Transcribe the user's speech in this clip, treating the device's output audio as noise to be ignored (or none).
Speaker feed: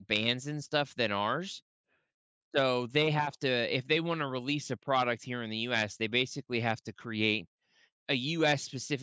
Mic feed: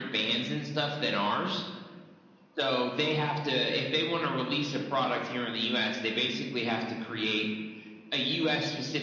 none